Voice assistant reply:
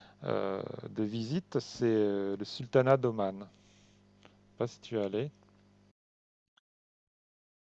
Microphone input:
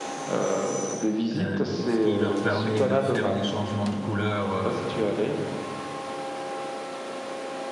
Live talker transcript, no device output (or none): euh, ce qui leur permet de faire des changements de couleur euh,